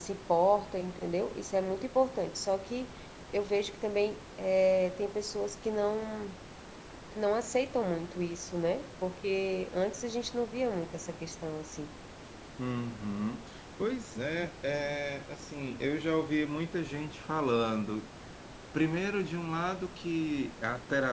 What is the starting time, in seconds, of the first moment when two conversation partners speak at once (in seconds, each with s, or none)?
none